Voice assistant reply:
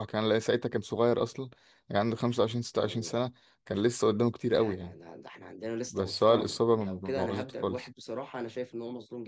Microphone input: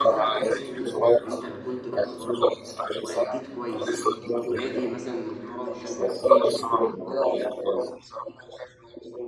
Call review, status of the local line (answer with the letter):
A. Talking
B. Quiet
A